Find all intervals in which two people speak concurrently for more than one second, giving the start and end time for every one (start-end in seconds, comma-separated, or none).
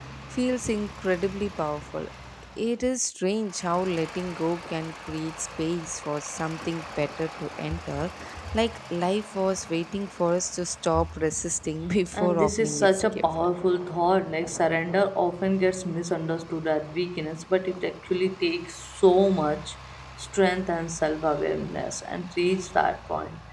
12.1-13.5